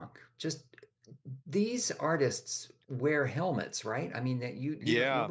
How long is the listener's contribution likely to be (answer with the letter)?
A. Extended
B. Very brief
A